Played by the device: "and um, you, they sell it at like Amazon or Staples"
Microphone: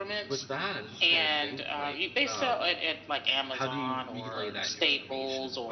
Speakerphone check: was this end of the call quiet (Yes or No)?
No